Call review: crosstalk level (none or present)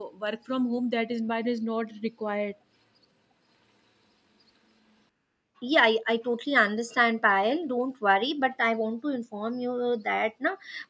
none